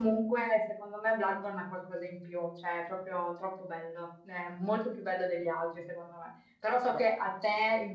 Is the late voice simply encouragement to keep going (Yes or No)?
Yes